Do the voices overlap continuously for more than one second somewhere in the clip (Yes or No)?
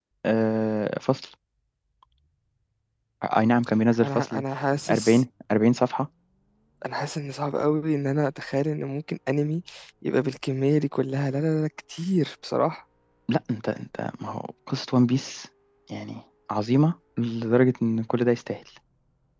No